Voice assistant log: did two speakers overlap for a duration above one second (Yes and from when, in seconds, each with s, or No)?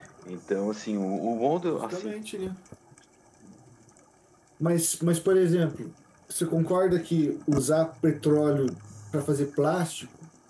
No